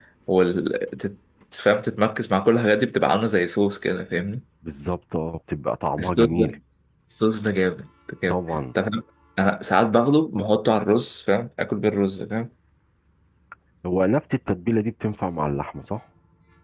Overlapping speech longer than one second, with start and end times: none

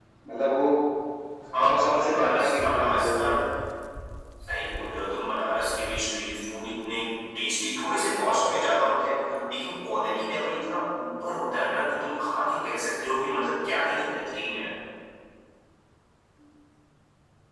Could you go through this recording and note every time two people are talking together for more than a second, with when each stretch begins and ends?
1.6-3.2

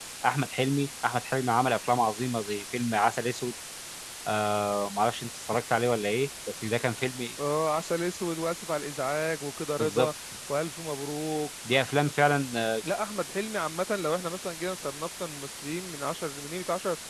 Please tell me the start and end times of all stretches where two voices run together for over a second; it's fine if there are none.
none

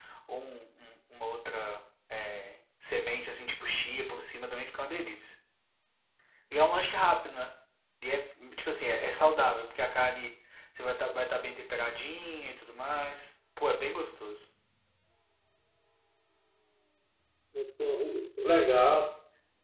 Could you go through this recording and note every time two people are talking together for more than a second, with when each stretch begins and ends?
none

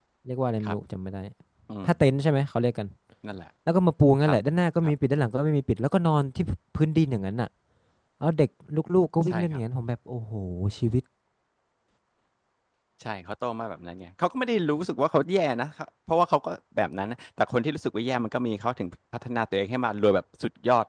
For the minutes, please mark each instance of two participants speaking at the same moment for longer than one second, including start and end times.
none

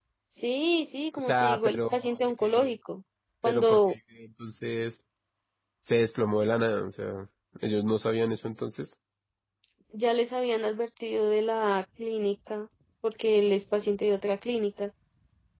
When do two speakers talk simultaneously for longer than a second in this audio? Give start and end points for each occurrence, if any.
1.3-2.7

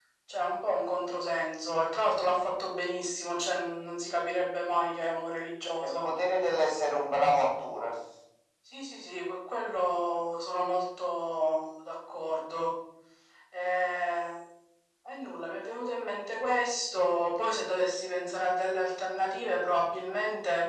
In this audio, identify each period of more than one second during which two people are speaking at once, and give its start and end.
none

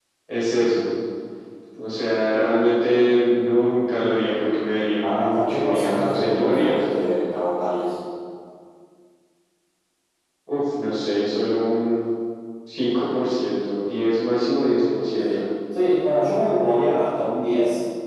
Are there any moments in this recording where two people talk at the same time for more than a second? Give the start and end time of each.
5.0-6.8

